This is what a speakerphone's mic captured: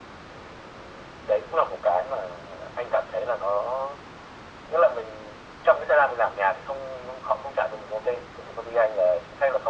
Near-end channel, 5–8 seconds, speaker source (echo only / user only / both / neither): echo only